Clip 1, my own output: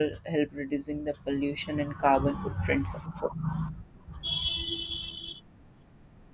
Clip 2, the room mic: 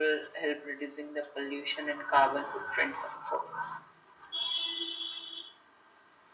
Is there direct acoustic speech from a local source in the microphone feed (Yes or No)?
No